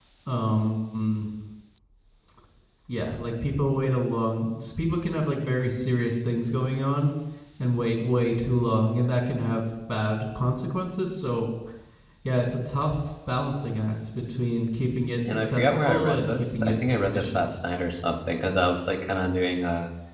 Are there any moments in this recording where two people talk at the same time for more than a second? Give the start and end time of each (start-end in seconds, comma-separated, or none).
15.3-17.5